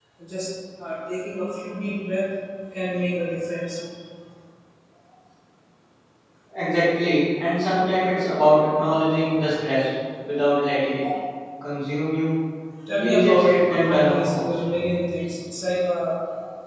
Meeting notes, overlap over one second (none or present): present